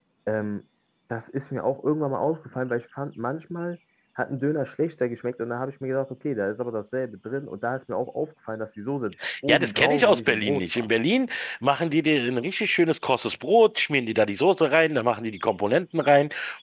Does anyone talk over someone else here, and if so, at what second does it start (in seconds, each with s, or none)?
9.5 s